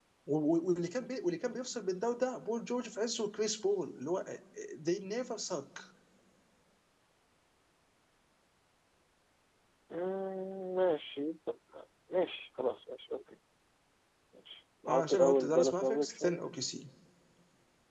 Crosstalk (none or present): present